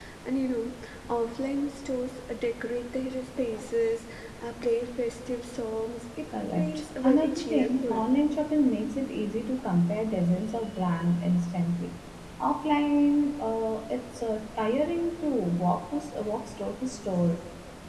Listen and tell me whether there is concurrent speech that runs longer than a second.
Yes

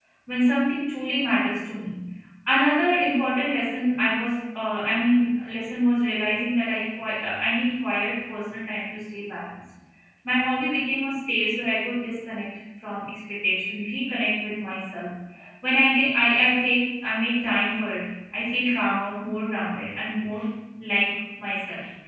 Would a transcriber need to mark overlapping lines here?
No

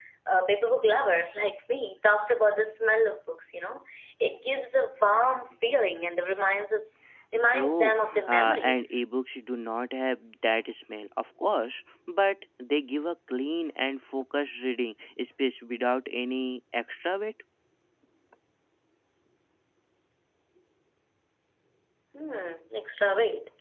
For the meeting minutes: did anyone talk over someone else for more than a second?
Yes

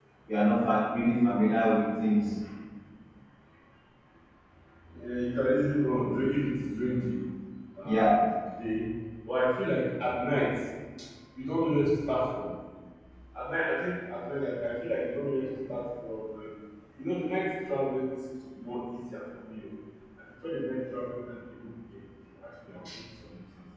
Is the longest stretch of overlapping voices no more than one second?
Yes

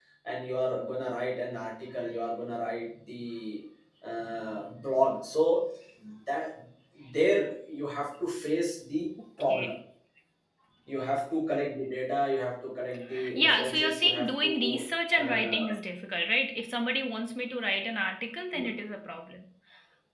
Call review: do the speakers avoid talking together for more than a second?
No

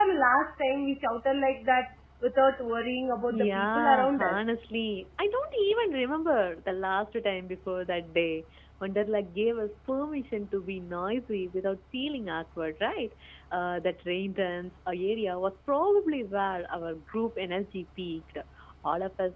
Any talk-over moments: Yes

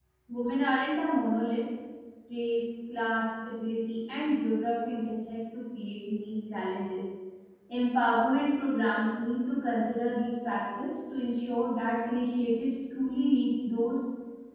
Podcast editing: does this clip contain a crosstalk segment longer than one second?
No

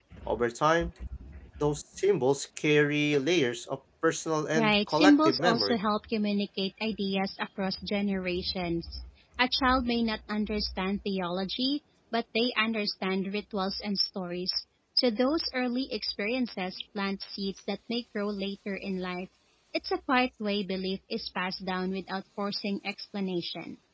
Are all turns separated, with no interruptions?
No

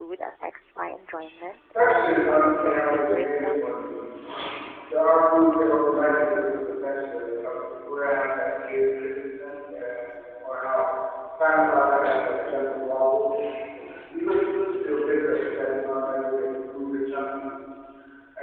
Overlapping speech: Yes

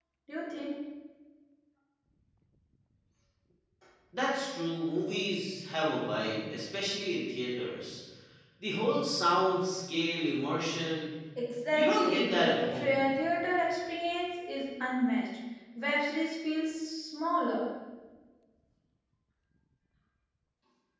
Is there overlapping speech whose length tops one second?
Yes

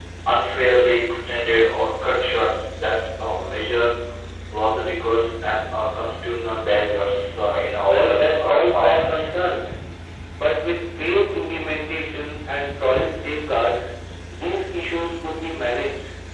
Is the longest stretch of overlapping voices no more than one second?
No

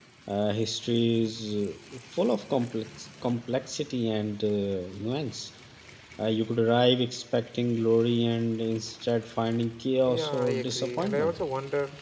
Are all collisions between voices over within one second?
No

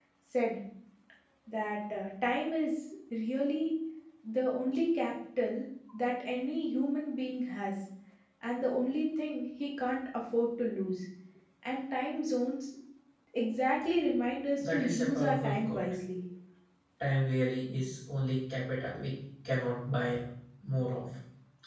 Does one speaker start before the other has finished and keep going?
Yes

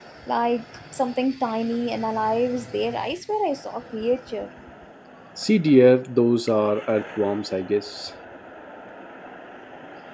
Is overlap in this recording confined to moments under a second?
Yes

